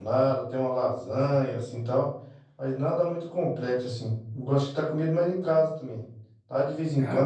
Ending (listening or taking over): listening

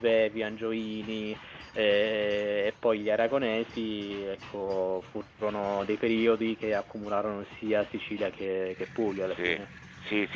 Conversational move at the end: taking over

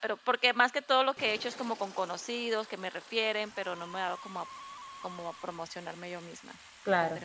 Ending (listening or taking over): taking over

